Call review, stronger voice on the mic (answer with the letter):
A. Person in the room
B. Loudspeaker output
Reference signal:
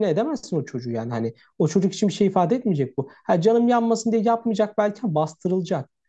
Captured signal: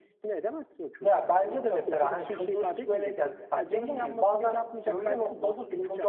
A